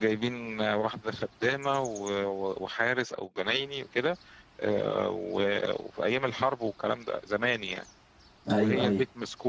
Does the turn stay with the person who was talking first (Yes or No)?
Yes